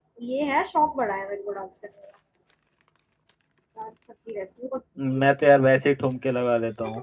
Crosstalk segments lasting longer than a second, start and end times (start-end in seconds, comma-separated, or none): none